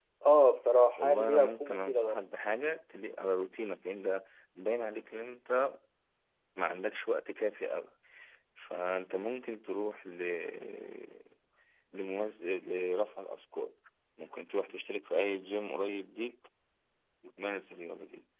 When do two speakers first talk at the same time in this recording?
1 s

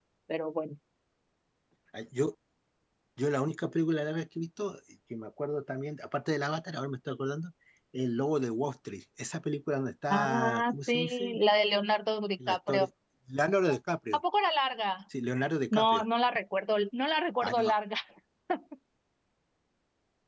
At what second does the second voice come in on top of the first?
10 s

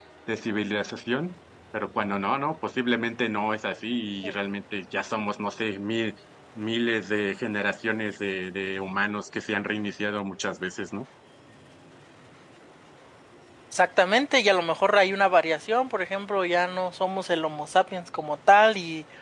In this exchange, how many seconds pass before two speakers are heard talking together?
none

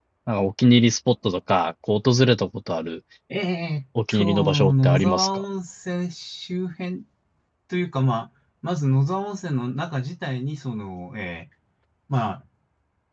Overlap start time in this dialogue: 4 s

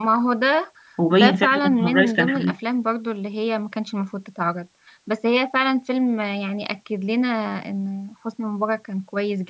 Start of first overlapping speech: 1 s

